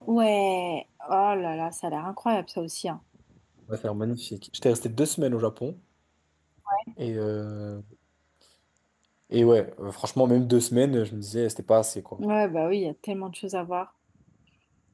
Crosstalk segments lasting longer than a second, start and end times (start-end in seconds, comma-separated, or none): none